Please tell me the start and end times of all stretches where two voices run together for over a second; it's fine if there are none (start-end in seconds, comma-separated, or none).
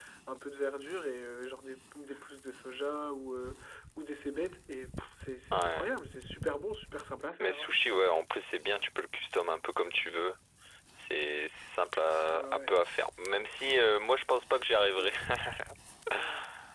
none